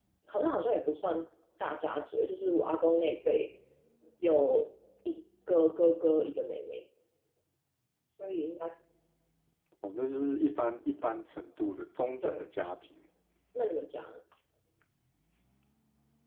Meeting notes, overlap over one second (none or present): none